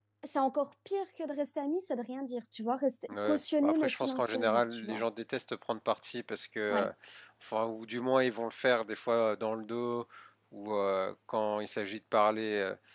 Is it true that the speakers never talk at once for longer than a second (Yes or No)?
No